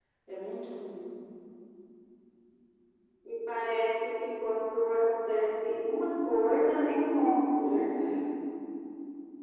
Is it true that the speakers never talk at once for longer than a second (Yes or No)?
Yes